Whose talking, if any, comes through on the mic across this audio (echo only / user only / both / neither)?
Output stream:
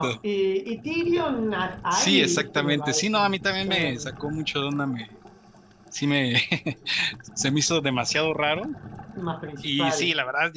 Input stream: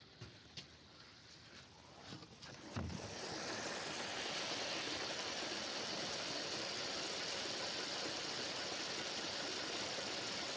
neither